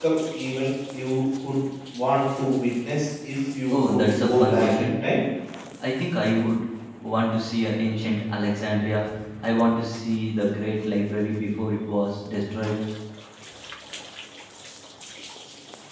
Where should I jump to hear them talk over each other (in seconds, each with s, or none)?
3.7 s